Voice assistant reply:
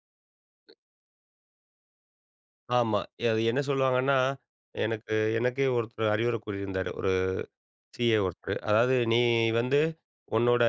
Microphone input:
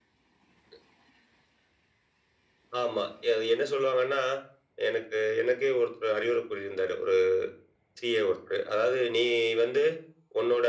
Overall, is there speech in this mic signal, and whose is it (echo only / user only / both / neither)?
echo only